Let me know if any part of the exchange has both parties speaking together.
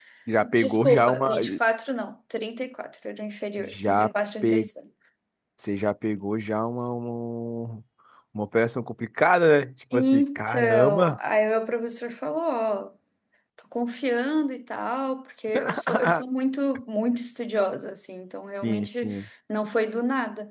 Yes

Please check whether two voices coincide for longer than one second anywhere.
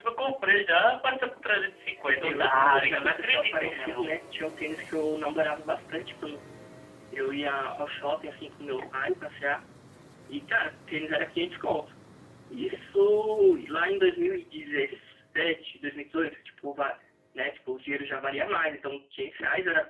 Yes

